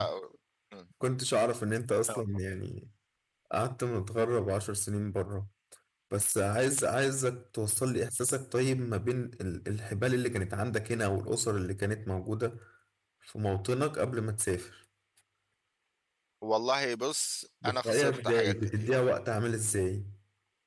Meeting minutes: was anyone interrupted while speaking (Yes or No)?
Yes